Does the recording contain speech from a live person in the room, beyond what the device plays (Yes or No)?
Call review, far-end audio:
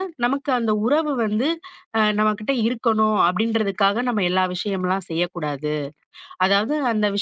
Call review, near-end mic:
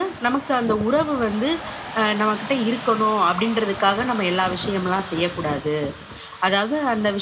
No